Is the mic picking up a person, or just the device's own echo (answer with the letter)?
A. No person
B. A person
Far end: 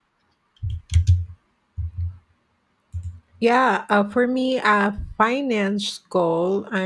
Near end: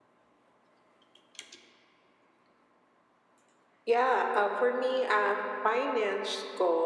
A